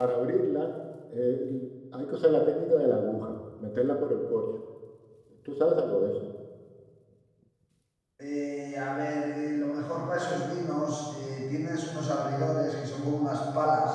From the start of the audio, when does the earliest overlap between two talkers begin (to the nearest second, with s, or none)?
none